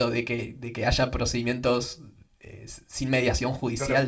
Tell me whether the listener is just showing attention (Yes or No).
No